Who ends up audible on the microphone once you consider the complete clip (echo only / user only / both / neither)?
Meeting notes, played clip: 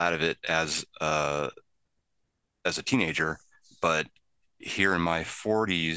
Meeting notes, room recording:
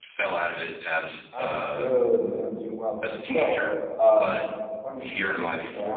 both